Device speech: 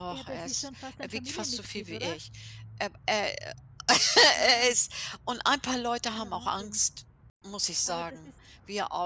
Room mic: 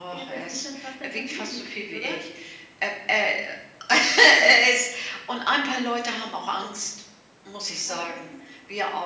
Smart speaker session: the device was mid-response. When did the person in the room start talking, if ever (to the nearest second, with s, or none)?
none